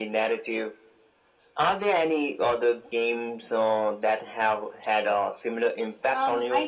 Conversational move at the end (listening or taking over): taking over